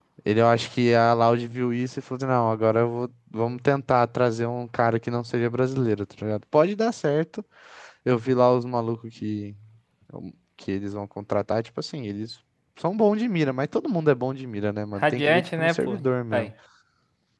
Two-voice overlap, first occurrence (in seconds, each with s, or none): 15.0 s